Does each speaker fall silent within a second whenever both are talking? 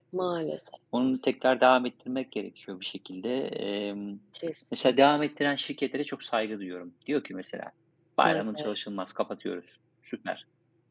Yes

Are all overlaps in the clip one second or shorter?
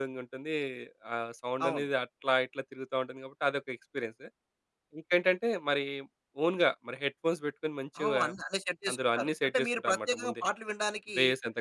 No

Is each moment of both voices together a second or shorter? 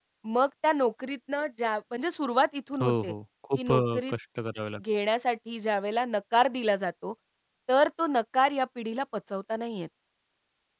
Yes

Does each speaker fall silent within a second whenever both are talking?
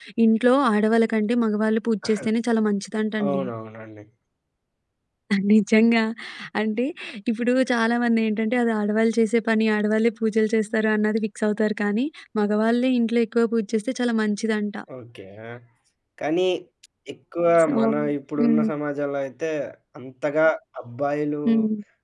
Yes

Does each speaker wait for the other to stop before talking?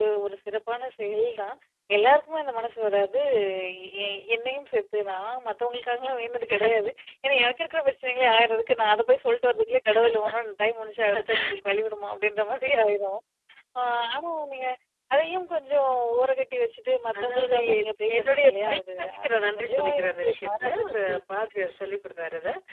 No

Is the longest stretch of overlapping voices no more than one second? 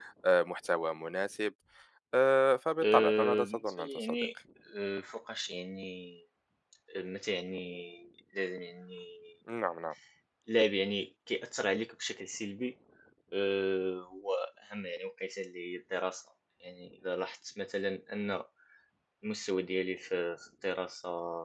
No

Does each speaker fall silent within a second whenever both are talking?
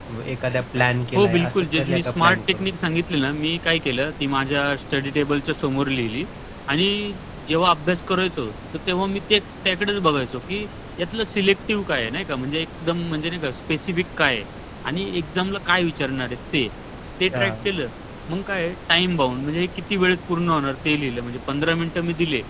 No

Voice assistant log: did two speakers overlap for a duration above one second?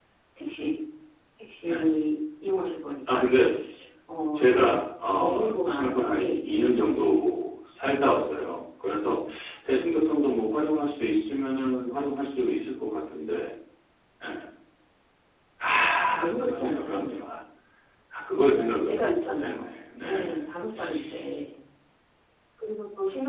Yes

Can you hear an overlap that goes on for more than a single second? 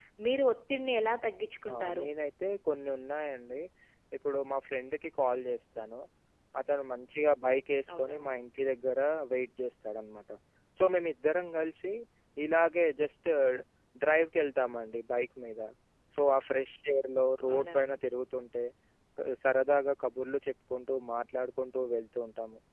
No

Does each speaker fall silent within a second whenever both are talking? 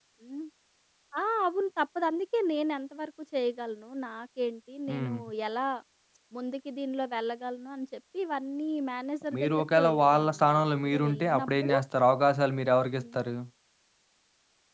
No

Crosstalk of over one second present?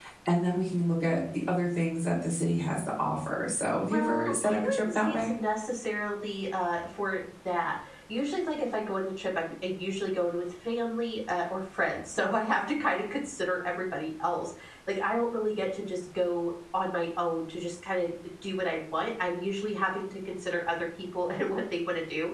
Yes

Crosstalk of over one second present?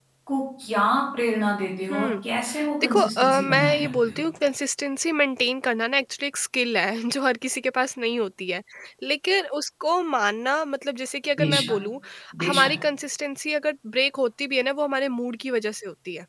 Yes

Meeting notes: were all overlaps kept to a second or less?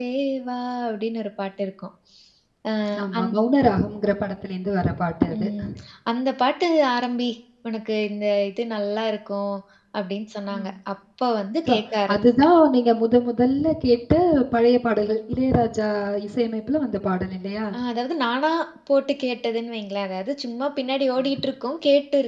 Yes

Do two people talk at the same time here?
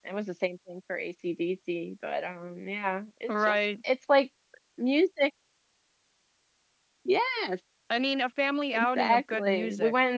Yes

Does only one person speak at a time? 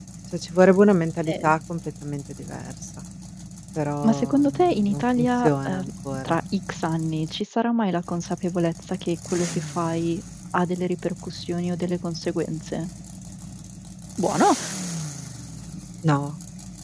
No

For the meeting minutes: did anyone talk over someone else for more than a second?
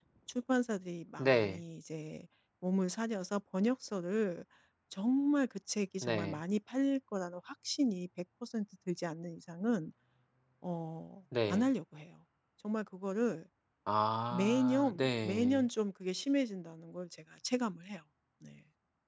Yes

